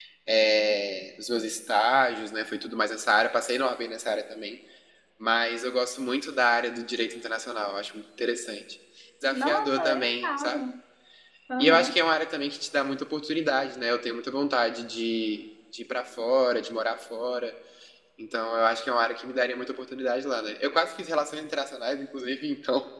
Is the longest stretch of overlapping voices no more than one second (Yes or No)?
No